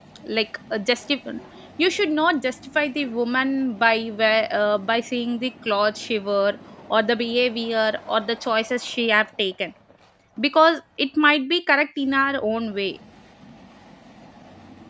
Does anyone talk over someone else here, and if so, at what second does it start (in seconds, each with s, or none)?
none